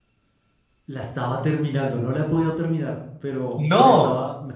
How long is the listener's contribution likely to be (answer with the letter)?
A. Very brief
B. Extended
A